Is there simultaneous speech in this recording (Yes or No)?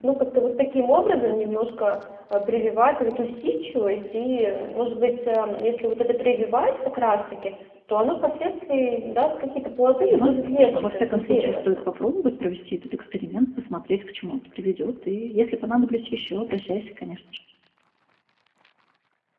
Yes